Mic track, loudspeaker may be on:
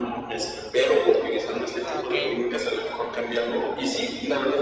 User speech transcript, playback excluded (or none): Ah, okey.